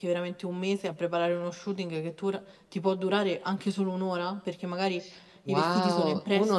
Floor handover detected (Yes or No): Yes